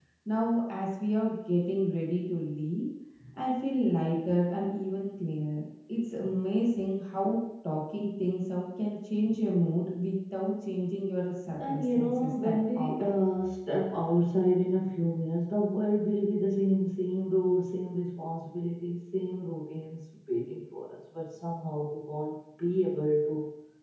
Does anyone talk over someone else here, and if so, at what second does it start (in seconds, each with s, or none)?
11.7 s